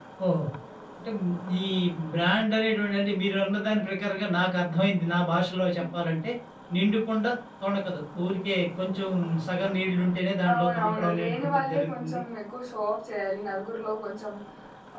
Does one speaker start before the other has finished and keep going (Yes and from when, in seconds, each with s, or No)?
Yes, from 10.4 s